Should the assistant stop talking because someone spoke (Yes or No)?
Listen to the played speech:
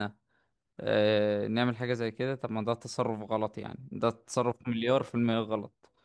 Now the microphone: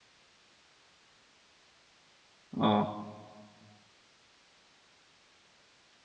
Yes